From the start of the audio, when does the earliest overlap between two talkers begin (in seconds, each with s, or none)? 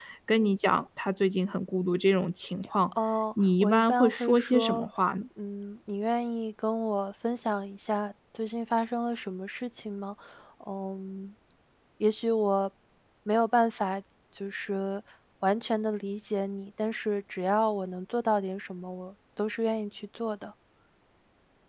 3.6 s